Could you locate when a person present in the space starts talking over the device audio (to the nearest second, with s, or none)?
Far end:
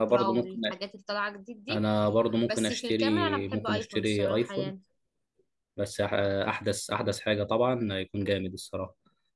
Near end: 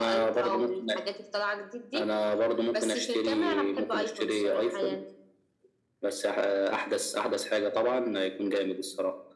none